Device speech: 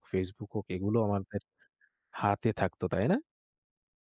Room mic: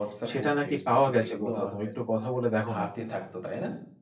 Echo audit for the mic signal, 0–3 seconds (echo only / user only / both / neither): both